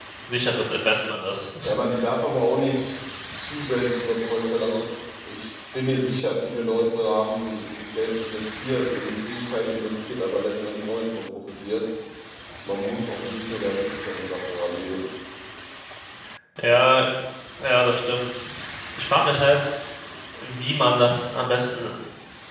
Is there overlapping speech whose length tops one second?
No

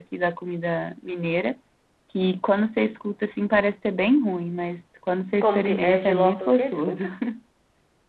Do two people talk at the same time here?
Yes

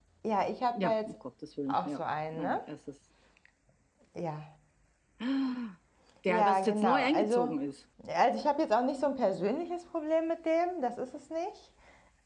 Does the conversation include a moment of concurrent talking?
Yes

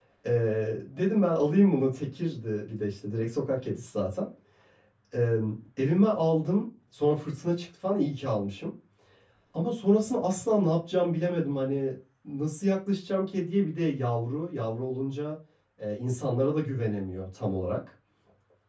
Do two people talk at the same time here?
No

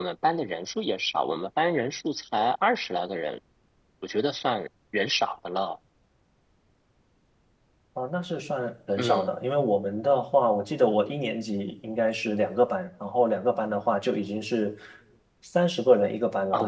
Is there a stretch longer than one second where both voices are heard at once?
No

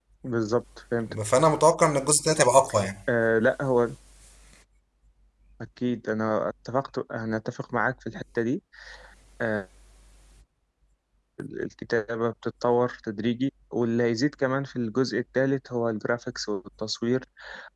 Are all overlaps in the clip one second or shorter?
Yes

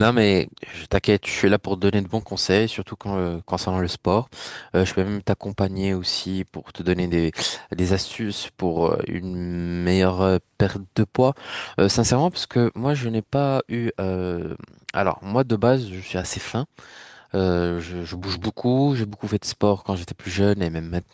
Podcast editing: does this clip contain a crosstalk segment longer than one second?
No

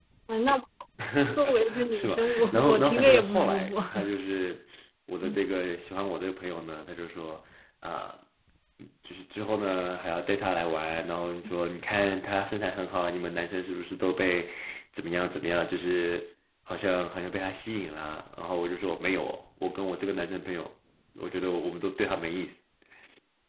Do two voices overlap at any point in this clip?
Yes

